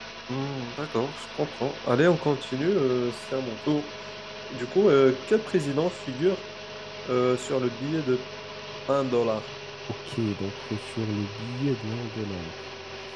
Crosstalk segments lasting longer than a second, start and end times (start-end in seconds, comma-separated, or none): none